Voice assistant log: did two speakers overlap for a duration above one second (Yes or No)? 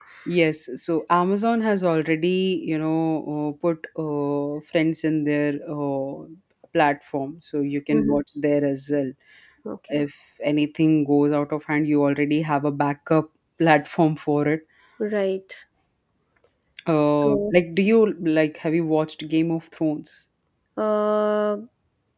No